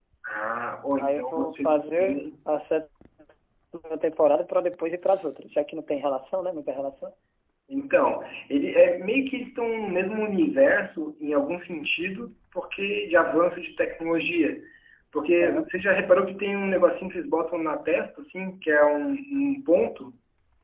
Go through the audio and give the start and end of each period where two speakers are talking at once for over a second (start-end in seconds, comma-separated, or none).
1.0-2.2